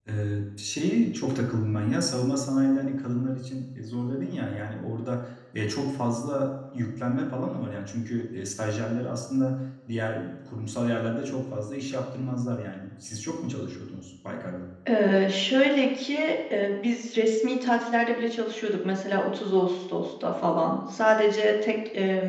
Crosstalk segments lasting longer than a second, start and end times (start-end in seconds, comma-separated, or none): none